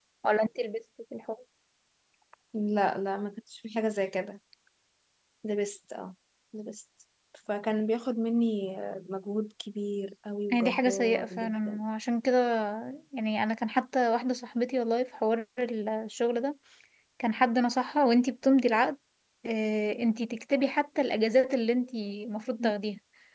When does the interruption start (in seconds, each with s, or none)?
10.5 s